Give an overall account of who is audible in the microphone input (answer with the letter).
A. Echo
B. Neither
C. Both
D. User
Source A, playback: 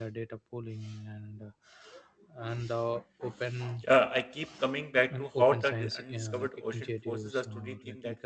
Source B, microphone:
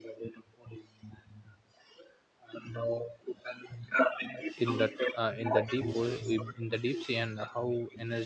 C